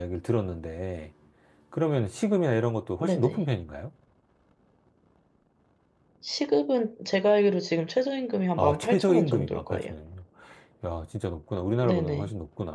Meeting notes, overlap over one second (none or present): present